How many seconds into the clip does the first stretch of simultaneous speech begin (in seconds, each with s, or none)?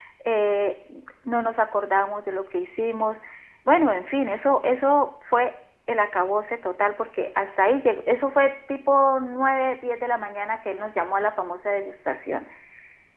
none